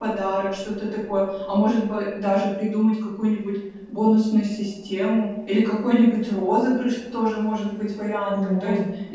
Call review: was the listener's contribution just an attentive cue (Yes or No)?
Yes